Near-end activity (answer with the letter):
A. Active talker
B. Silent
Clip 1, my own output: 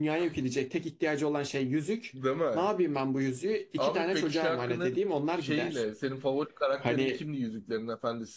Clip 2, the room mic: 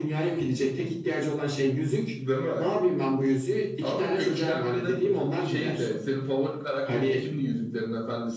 B